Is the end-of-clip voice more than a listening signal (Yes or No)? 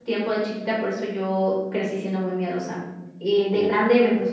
No